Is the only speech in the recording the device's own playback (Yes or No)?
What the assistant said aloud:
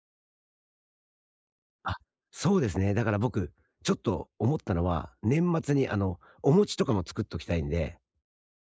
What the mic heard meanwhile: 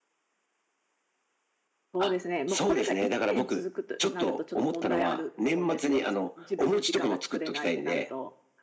No